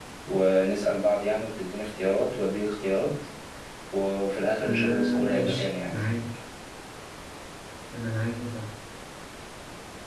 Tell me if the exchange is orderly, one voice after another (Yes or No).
No